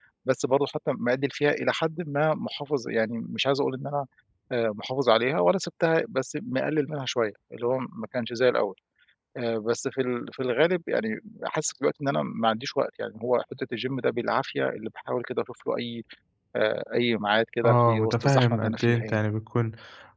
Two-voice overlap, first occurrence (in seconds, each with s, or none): 17.6 s